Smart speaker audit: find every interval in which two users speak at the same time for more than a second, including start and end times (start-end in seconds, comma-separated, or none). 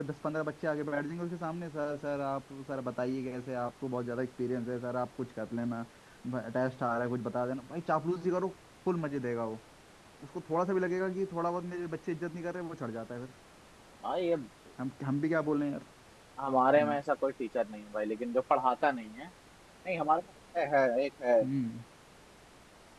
none